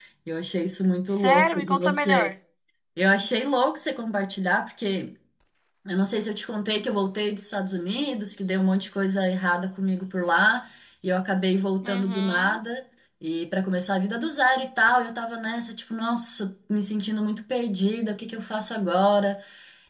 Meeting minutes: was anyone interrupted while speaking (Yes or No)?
Yes